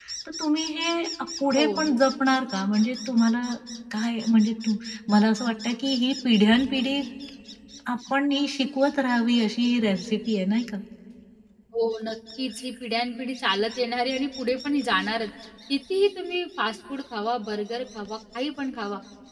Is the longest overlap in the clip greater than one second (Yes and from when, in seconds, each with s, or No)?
No